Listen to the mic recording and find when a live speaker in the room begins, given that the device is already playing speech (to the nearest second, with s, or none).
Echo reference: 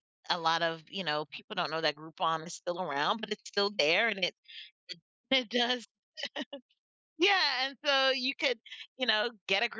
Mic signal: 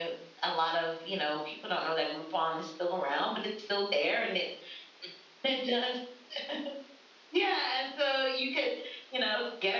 none